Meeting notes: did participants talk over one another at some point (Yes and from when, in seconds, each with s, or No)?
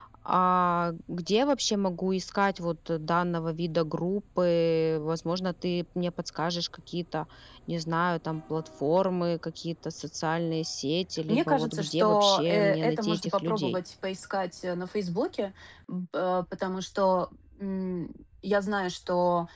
Yes, from 11.3 s